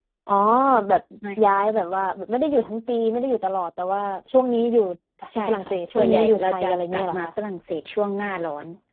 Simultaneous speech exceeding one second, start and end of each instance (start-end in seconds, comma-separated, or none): 5.5-7.2